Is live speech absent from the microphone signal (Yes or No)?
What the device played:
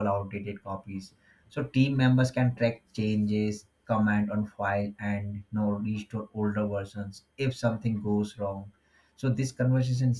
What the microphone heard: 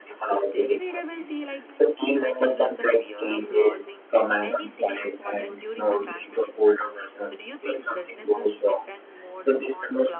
No